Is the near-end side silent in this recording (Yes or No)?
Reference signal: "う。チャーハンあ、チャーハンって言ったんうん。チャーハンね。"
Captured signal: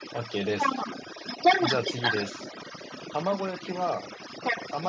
No